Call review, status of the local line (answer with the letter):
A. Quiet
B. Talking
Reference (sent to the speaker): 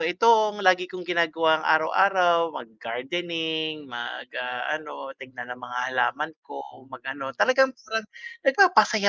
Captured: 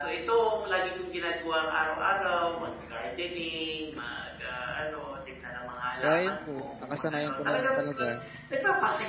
B